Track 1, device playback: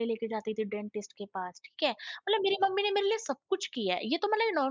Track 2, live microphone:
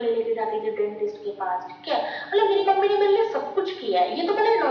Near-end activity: none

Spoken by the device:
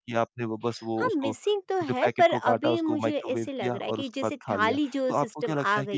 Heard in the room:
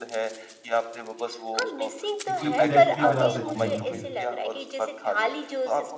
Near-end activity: present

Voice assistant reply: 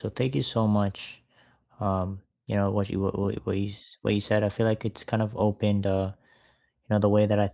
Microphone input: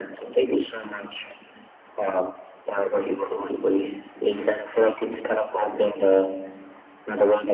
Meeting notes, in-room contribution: none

